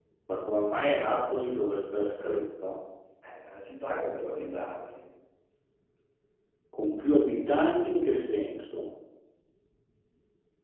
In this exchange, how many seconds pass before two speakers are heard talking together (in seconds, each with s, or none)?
none